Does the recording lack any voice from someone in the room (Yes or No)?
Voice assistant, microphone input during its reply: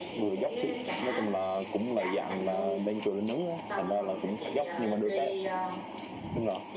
No